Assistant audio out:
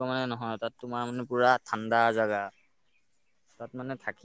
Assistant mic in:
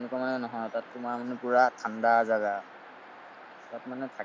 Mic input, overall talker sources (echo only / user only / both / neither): echo only